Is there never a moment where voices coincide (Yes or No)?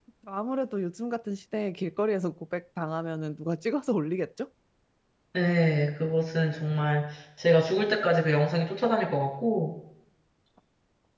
Yes